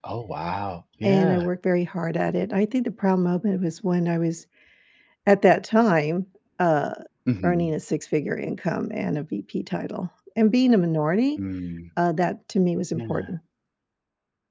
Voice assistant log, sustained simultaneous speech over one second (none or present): none